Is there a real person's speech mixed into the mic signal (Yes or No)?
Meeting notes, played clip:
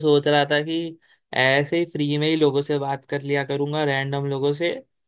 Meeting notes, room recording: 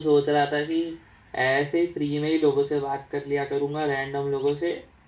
No